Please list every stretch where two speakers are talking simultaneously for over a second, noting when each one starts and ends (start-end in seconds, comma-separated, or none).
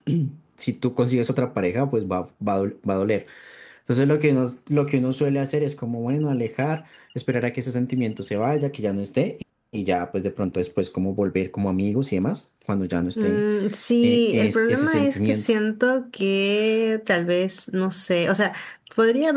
14.0-15.4